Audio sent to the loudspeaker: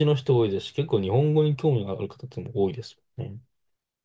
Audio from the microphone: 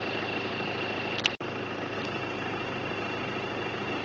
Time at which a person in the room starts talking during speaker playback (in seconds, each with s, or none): none